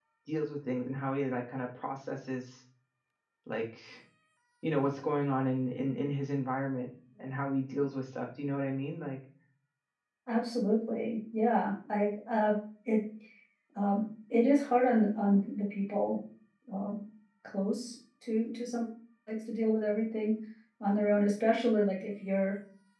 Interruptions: none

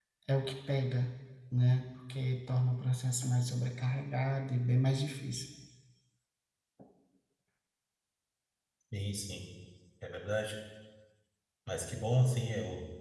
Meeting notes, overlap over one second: none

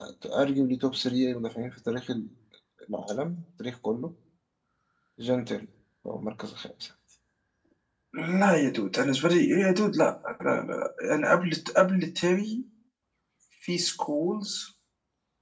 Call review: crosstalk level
none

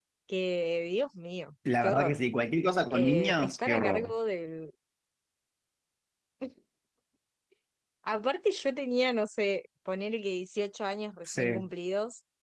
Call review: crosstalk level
present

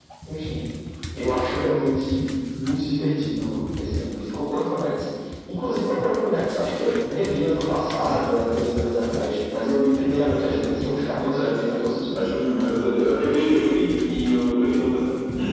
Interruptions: present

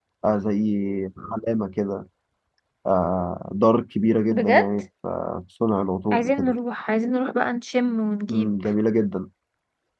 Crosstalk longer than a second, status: none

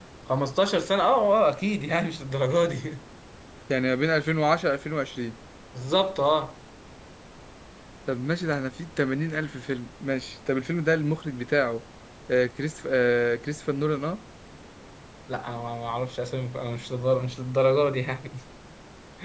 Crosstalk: none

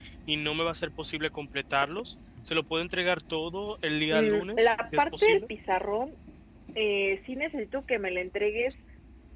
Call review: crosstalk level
present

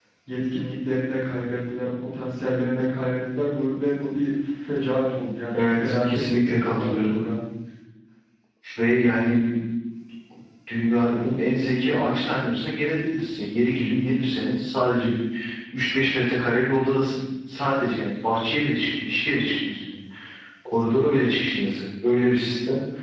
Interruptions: present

